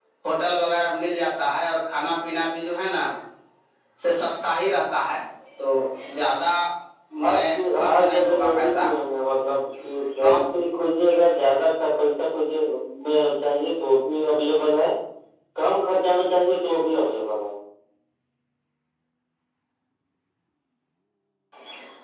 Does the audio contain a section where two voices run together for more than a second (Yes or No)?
Yes